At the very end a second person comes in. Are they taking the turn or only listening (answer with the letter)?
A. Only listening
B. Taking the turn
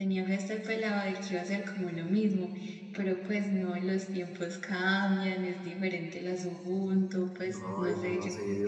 B